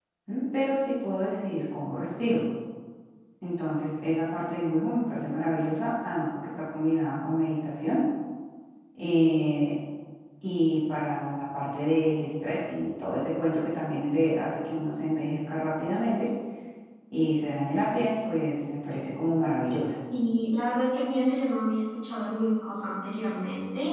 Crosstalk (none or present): none